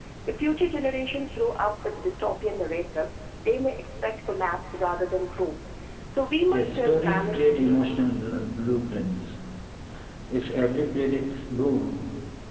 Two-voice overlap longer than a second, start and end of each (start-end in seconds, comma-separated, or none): 6.5-8.0